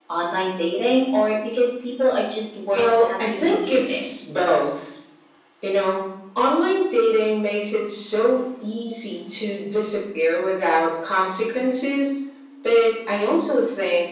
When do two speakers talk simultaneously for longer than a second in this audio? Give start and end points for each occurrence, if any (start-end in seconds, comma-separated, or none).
2.7-4.1